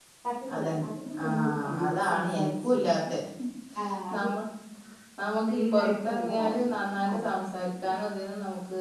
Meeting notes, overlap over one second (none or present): present